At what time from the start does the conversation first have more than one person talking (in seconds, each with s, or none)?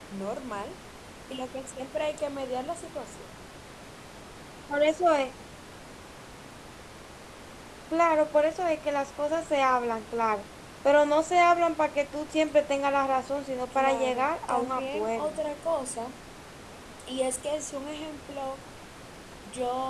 13.7 s